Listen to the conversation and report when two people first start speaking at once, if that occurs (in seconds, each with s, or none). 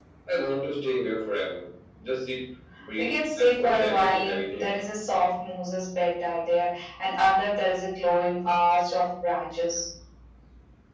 3.0 s